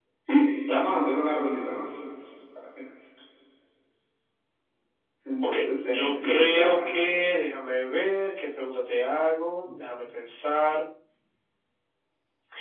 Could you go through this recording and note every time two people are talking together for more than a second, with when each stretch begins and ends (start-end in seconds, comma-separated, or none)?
5.4-6.7